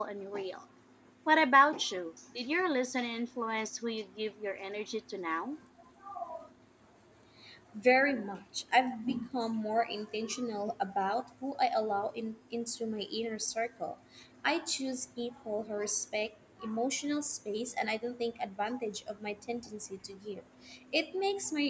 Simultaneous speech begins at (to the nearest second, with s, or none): none